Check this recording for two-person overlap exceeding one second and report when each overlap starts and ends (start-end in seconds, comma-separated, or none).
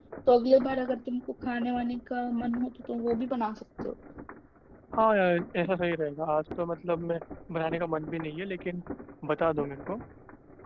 none